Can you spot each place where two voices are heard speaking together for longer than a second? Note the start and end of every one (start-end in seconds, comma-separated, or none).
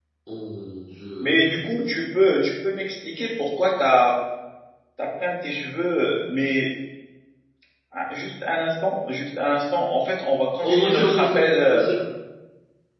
10.6-11.9